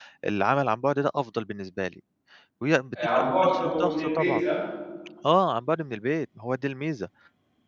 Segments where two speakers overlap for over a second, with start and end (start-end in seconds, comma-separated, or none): 3.2-4.4